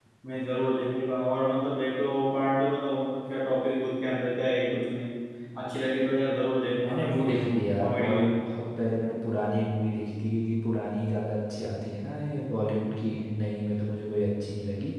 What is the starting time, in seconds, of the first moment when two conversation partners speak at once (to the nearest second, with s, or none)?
7 s